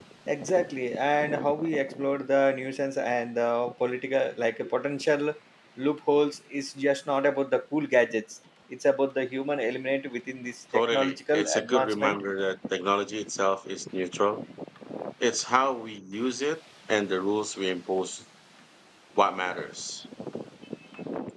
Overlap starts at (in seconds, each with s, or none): 10.7 s